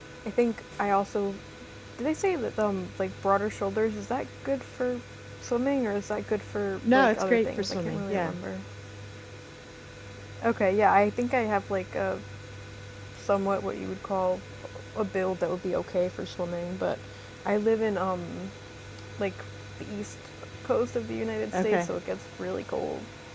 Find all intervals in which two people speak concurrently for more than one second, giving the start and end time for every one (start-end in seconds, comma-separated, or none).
6.9-8.4